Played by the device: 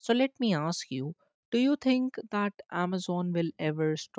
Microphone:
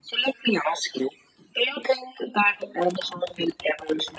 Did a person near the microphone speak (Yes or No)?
No